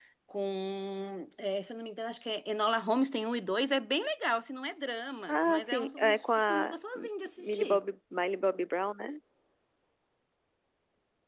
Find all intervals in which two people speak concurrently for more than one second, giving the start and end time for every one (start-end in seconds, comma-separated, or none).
5.3-6.8